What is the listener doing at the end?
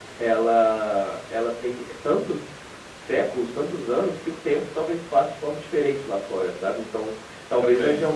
listening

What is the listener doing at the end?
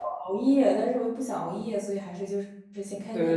taking over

